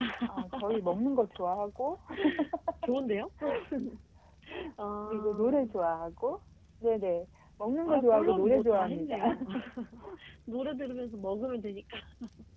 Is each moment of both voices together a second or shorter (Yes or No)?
No